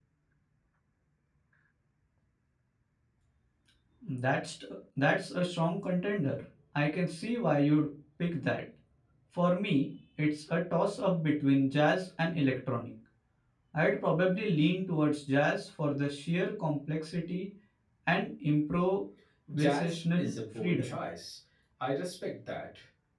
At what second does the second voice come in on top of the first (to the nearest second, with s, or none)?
19 s